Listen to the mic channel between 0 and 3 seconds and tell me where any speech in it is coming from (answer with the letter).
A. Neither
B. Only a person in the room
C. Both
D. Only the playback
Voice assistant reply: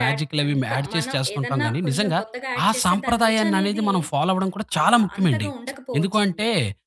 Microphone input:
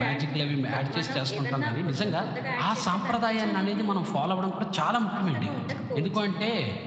D